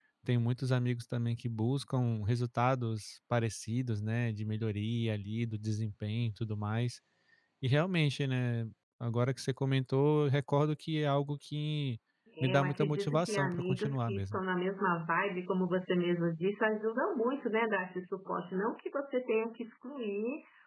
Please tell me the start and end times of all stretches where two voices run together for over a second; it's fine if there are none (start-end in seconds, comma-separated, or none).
12.4-14.4